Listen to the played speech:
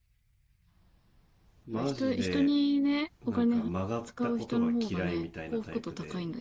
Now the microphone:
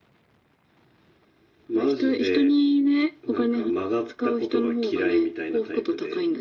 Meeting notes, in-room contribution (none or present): none